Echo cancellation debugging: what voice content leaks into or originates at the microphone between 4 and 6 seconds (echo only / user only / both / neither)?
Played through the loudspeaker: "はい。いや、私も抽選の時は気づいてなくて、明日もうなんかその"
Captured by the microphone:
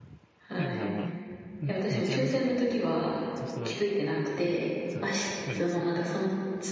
both